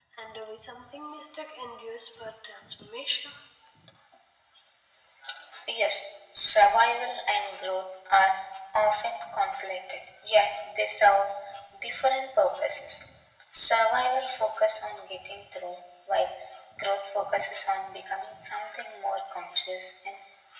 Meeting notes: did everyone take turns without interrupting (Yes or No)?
Yes